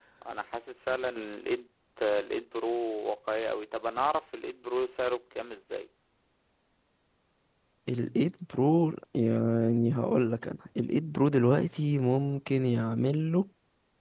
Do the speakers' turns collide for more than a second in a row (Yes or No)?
No